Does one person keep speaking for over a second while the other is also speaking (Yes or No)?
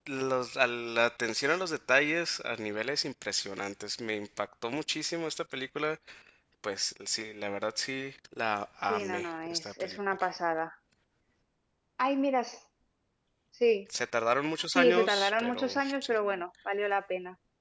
Yes